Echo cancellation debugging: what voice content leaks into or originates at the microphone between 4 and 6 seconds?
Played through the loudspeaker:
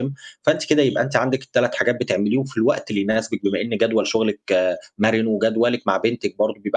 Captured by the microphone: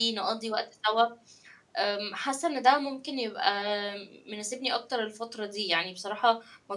user only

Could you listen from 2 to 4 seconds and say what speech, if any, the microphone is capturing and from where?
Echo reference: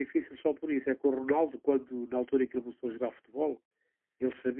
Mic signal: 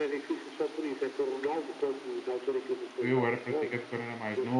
both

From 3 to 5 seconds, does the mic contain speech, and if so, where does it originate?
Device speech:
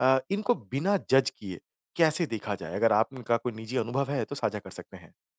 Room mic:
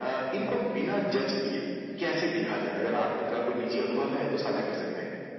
echo only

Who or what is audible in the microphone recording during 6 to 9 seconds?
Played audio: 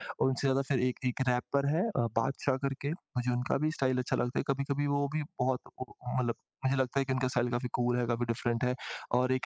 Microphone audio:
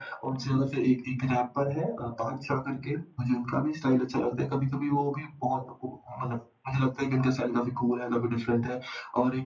echo only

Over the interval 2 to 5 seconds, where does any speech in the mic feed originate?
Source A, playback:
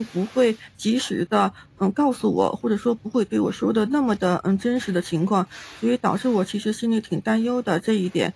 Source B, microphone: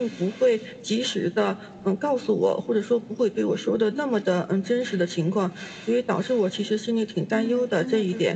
echo only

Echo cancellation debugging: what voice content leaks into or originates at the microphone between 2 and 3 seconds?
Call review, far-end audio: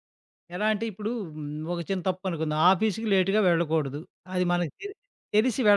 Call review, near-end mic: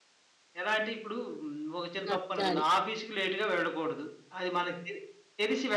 both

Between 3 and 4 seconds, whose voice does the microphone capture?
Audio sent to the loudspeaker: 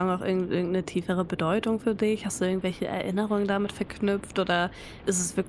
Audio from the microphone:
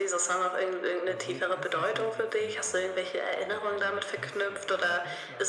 both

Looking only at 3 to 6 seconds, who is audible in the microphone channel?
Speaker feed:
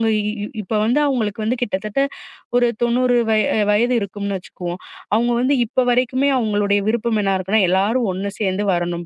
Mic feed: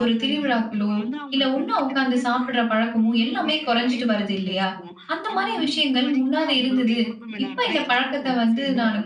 both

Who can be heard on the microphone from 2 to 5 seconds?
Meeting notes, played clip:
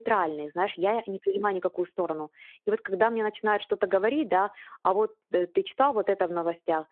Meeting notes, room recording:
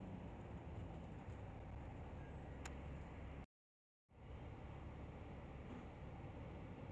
neither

